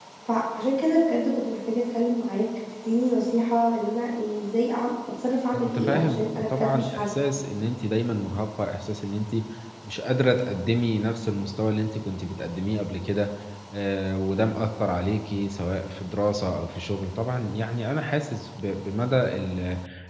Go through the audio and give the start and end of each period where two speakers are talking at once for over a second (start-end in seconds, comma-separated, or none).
5.5-7.1